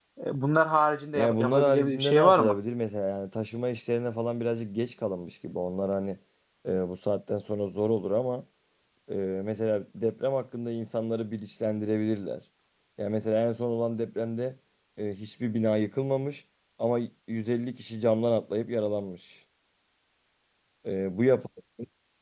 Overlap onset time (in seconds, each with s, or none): 1.2 s